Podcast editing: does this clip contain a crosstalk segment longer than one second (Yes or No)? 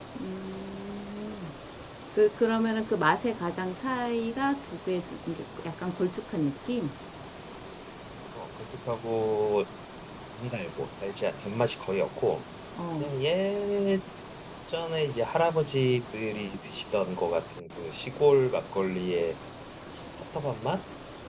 No